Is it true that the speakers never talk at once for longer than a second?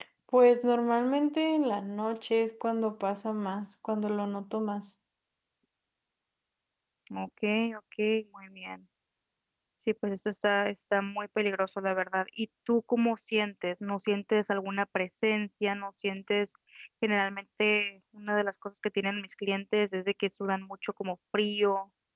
Yes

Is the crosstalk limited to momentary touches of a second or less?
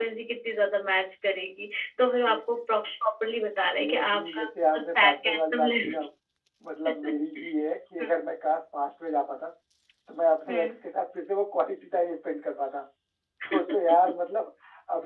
No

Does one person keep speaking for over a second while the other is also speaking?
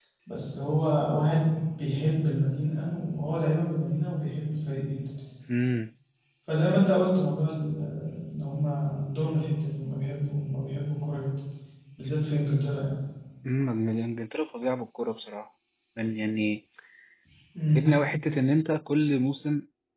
No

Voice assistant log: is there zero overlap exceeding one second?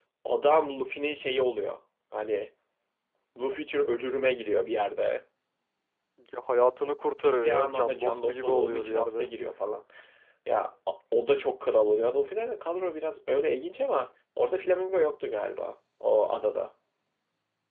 No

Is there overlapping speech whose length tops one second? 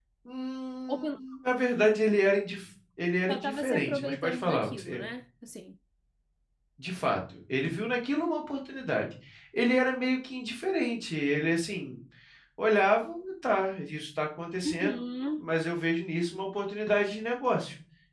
Yes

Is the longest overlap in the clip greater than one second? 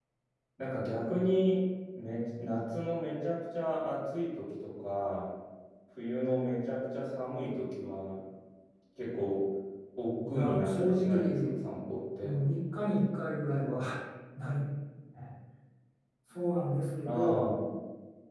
Yes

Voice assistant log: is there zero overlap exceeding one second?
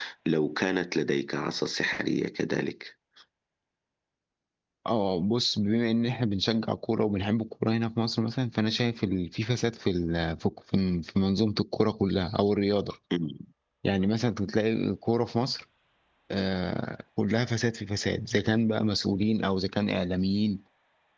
Yes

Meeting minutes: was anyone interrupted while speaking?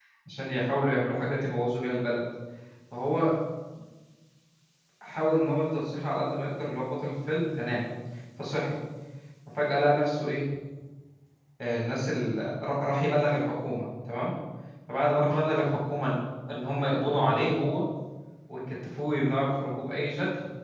No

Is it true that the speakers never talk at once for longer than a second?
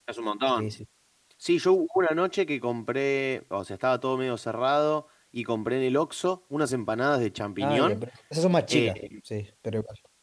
Yes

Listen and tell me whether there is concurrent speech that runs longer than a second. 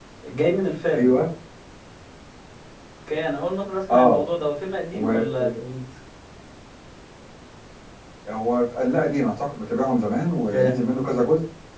No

